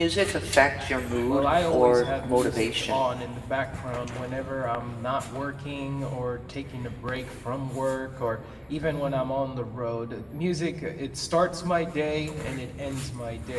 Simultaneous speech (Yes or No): Yes